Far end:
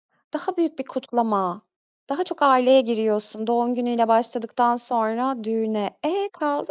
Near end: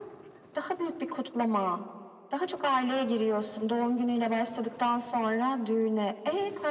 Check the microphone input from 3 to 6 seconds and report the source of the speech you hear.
echo only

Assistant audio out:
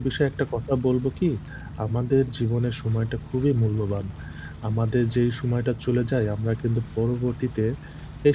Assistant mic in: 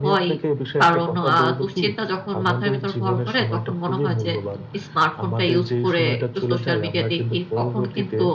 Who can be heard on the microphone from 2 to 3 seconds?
both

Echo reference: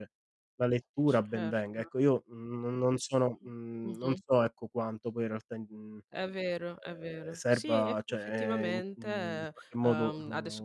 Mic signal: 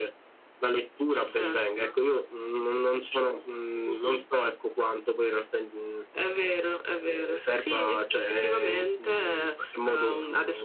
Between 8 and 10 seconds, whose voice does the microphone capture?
echo only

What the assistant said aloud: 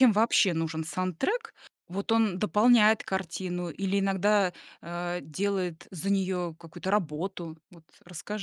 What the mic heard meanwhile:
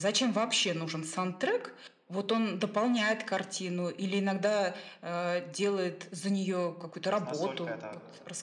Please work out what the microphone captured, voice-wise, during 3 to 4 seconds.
echo only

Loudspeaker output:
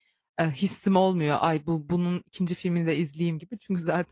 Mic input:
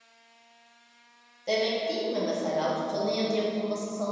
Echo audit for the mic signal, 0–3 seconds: user only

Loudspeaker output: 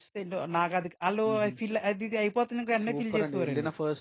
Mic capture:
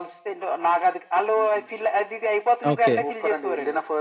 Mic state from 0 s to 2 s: echo only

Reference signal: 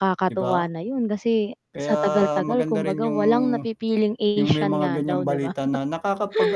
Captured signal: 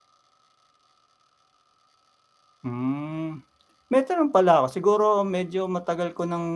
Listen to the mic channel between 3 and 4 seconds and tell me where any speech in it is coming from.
user only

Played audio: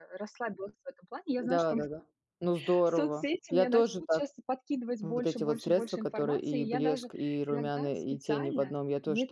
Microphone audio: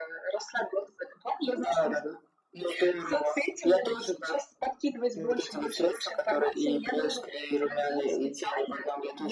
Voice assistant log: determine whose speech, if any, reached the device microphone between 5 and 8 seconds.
echo only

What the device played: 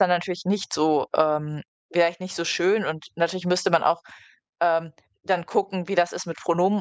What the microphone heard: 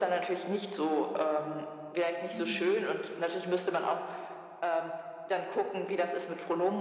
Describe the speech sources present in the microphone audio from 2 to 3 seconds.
both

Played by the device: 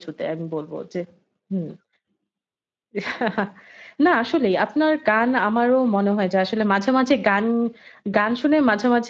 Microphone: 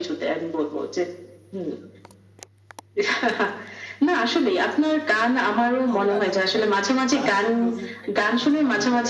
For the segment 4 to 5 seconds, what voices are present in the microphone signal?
echo only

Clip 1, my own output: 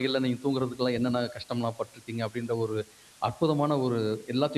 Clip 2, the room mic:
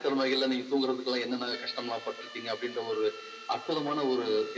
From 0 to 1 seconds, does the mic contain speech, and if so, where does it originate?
echo only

